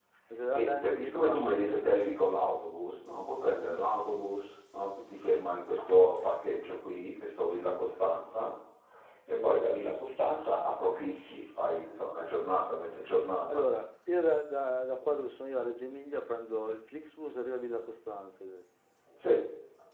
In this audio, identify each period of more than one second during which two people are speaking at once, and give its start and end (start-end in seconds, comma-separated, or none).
0.5-2.0